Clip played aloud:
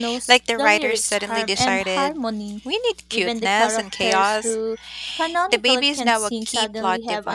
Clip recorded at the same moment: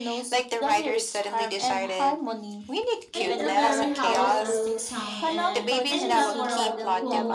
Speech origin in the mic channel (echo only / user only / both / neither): both